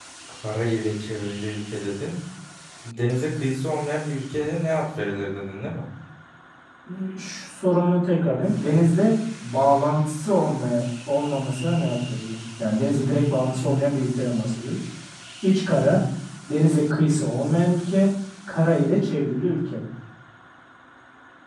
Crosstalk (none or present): none